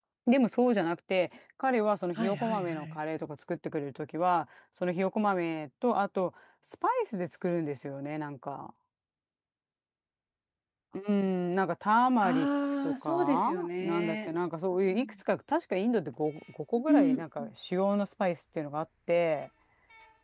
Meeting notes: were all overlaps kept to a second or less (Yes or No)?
No